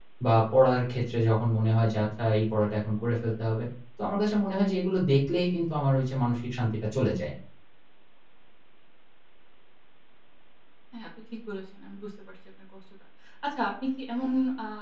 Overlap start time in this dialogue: none

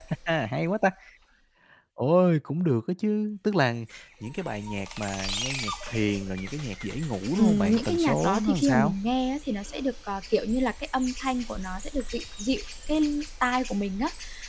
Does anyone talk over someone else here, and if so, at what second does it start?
7.4 s

